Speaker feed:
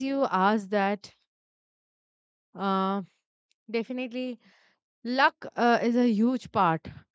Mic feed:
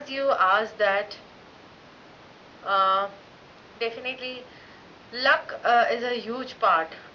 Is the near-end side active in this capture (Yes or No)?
No